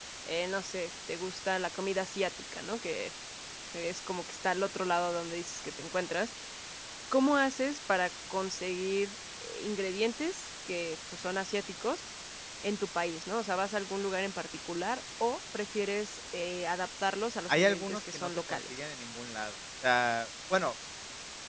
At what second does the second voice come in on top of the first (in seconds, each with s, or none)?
17.5 s